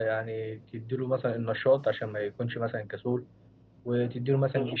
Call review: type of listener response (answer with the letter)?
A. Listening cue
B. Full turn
A